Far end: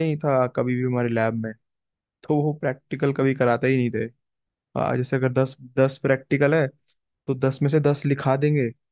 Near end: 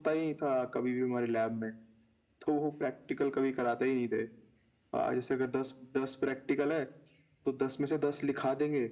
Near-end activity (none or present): none